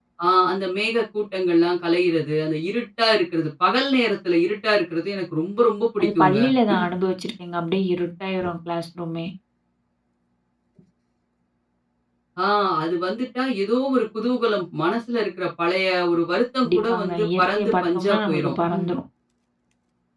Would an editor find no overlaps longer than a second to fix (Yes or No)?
No